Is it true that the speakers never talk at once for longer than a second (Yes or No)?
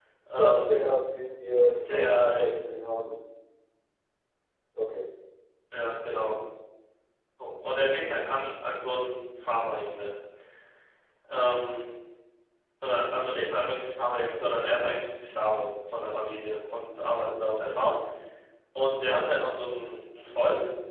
Yes